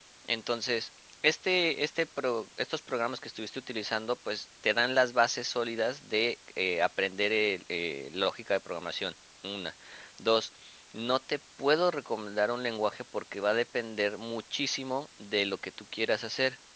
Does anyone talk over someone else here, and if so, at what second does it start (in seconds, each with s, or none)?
none